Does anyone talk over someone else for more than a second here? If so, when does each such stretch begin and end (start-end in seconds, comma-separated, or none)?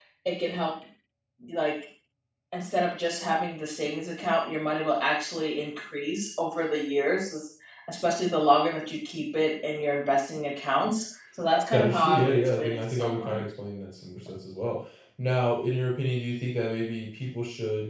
11.7-13.4